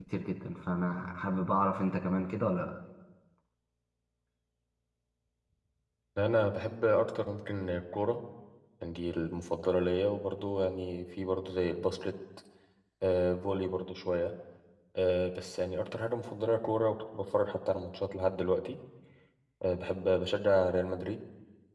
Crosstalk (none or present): none